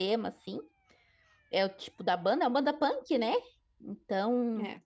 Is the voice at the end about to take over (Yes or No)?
No